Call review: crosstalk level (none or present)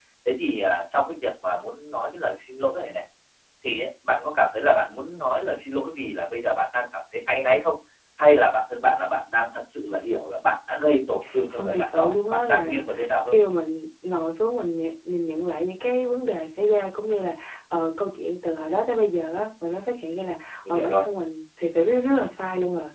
present